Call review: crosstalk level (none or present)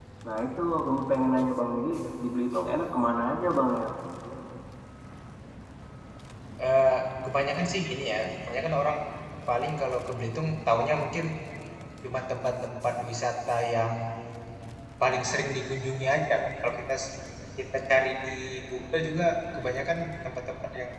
none